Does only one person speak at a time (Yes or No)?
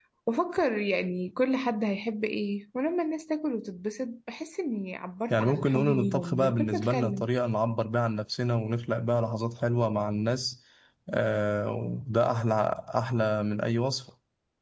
No